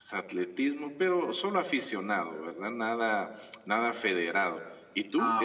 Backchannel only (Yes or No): Yes